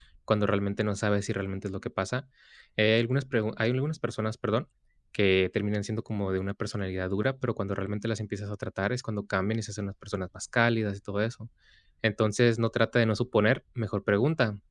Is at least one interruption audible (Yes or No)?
No